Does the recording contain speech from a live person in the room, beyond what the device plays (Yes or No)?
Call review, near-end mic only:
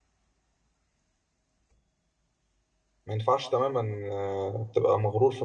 Yes